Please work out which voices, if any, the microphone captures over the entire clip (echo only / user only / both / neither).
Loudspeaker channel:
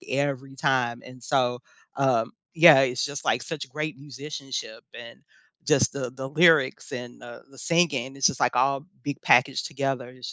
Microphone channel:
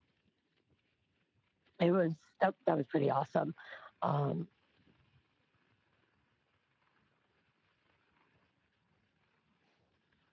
user only